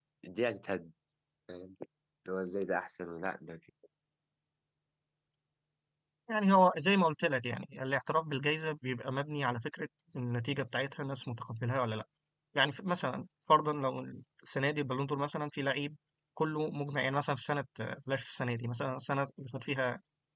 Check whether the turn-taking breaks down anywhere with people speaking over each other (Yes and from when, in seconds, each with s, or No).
No